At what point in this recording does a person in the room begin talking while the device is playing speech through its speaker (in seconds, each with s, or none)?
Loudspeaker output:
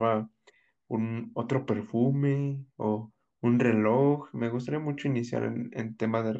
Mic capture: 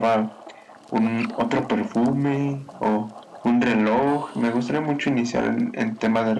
none